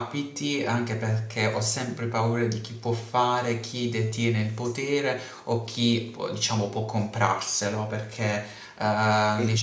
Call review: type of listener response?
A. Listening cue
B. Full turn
A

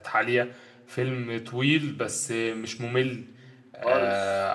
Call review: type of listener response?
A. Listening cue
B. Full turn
A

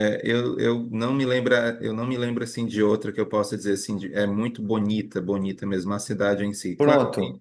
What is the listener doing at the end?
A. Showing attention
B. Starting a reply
A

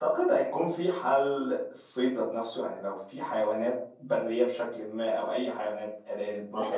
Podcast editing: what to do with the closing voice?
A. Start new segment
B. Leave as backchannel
A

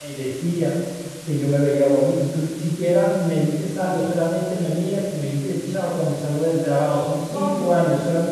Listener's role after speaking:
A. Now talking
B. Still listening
B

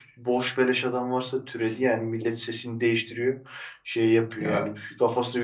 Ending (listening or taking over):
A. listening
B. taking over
A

